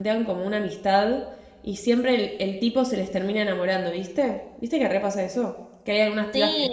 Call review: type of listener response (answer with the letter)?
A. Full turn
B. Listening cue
A